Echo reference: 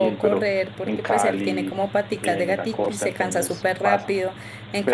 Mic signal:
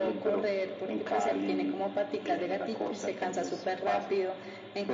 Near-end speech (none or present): none